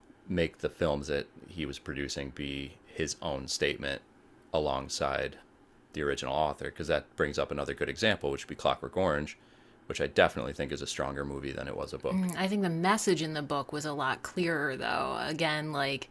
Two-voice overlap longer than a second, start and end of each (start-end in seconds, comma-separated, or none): none